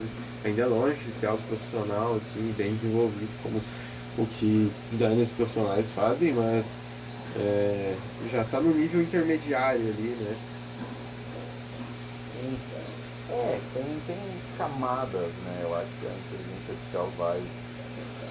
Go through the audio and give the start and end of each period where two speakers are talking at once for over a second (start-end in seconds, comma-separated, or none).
none